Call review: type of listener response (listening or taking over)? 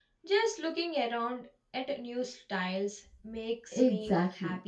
taking over